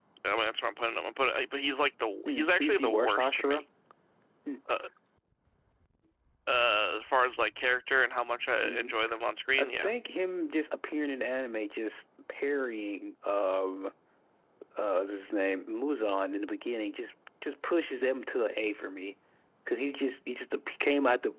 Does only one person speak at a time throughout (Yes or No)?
No